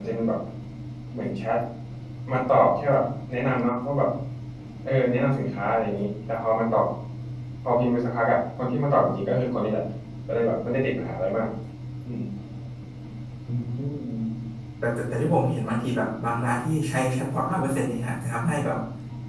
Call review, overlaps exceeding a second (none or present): none